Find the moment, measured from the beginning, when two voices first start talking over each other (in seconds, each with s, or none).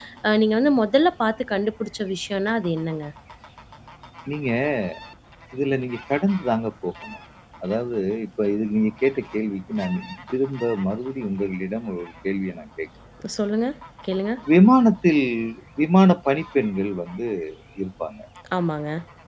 none